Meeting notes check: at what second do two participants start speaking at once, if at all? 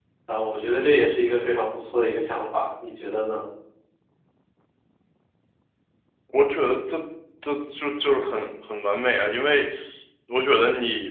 none

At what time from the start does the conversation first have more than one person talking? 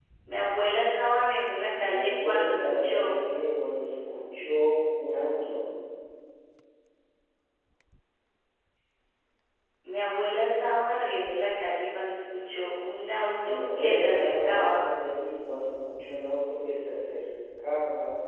1.8 s

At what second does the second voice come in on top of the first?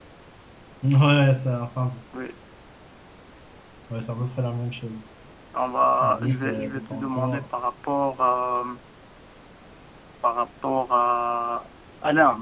6.0 s

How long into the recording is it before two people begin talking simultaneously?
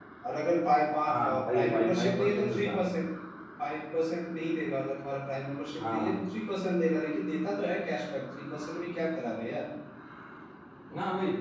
1.1 s

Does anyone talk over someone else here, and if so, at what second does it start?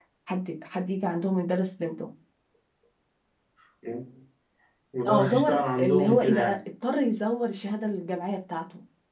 5.1 s

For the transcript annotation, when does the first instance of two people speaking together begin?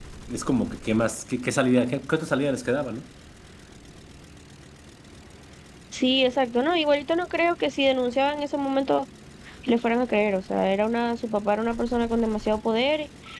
none

